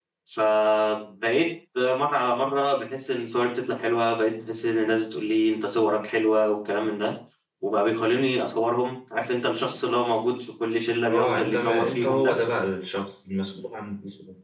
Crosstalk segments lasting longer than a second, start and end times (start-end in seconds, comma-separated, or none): 11.1-12.3